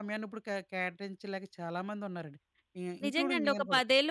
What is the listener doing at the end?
taking over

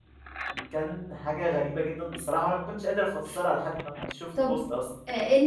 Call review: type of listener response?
taking over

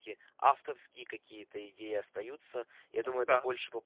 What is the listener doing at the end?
listening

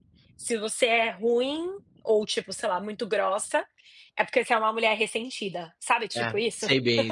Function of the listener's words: taking over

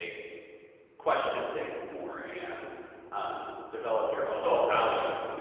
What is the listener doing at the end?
listening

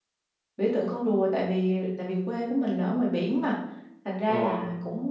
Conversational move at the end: listening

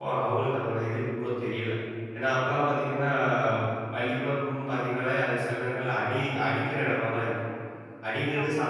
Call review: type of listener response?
listening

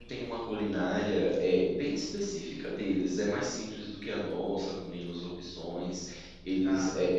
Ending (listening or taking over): listening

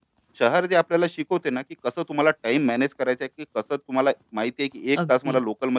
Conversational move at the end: listening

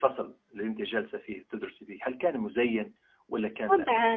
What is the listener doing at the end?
taking over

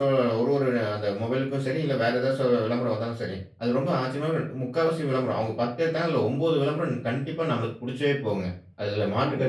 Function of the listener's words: listening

